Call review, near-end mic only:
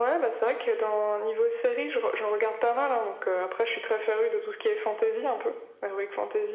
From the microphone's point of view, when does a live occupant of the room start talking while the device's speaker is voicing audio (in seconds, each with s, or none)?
none